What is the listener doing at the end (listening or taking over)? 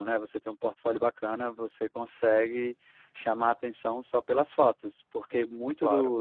listening